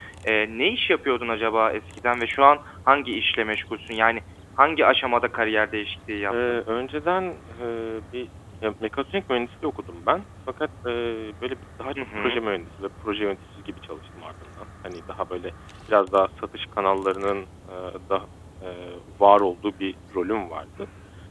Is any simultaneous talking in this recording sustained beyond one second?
No

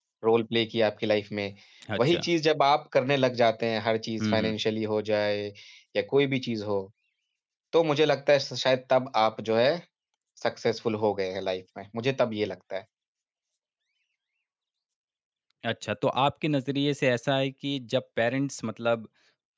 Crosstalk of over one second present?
No

